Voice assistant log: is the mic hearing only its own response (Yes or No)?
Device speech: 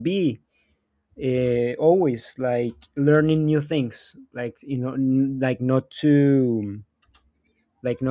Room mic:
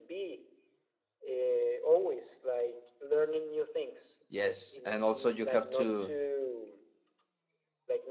No